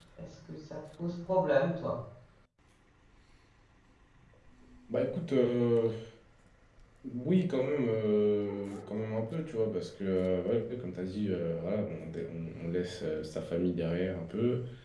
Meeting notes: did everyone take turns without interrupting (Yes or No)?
Yes